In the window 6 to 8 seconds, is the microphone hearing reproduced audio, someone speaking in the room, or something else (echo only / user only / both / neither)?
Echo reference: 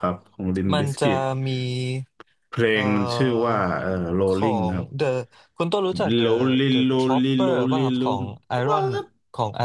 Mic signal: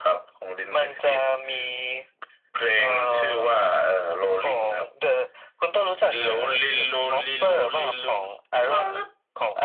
echo only